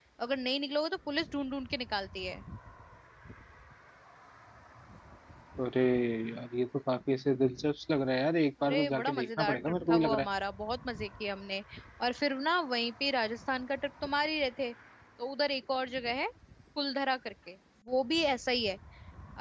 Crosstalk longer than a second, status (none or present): present